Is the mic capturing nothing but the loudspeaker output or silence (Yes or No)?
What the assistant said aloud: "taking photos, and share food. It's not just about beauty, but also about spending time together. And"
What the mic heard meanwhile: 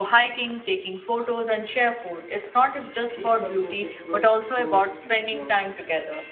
No